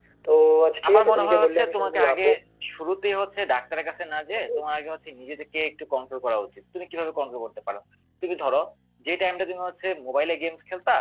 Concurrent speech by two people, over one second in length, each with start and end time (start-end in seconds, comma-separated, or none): 0.9-2.2